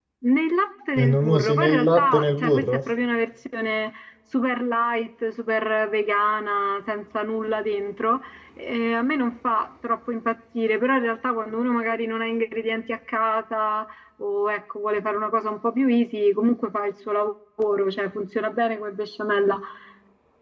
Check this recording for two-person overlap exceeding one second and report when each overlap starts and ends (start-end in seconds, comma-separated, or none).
1.0-2.8